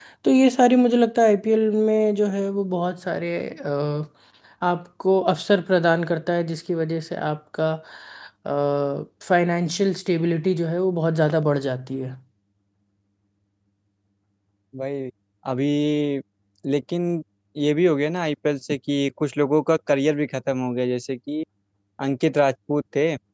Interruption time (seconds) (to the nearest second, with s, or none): none